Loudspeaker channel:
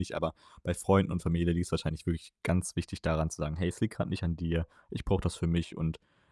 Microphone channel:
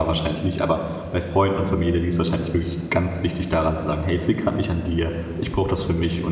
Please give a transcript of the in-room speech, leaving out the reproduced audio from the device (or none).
none